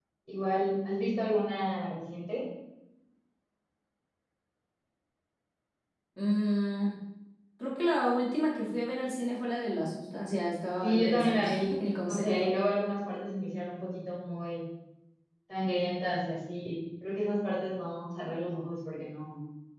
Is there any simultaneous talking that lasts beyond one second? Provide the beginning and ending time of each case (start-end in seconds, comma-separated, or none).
10.8-12.5